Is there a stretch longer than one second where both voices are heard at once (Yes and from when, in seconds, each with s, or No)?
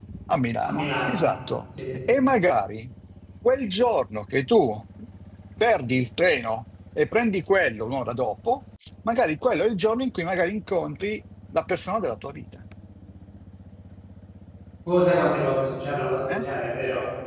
No